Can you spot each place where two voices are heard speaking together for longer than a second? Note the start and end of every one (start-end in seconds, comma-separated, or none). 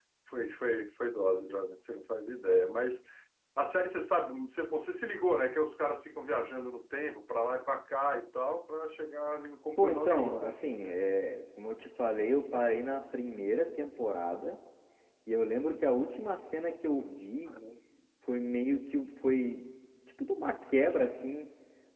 9.8-11.0